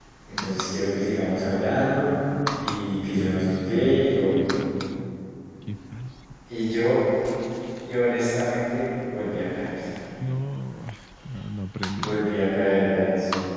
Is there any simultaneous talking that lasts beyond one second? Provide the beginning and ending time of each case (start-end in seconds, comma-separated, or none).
3.0-4.3